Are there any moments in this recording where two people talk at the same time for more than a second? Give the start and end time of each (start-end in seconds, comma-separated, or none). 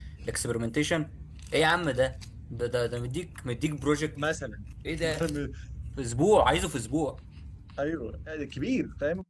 none